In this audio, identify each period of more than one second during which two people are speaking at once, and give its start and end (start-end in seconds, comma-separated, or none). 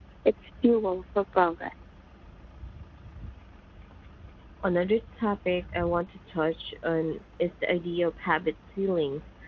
none